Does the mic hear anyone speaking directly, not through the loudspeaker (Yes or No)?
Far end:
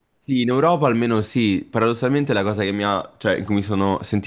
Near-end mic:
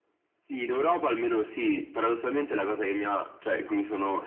No